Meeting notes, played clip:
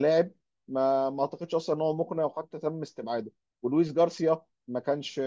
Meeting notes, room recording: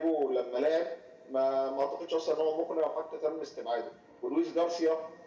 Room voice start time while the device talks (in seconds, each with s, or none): none